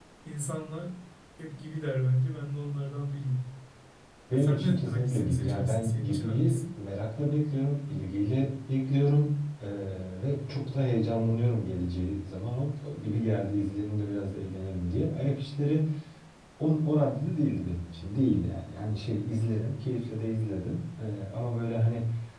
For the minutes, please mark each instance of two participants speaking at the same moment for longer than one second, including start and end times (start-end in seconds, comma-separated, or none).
4.3-6.6